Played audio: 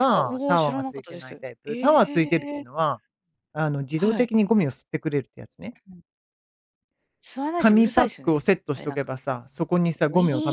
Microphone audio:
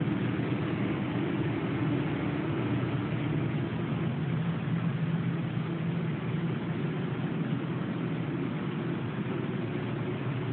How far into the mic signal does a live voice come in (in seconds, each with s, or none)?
none